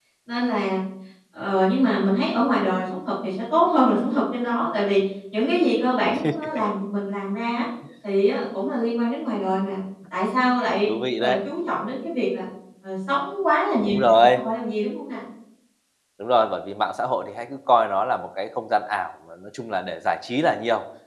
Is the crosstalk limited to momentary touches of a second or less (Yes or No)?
Yes